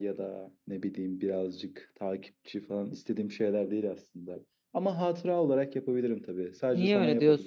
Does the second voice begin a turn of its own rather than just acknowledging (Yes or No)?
Yes